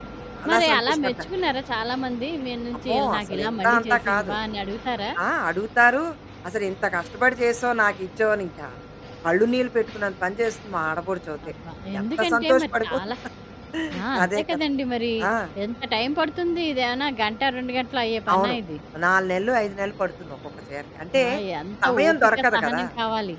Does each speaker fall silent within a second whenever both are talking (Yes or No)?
No